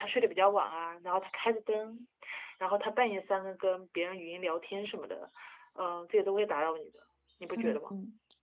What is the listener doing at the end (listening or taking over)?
taking over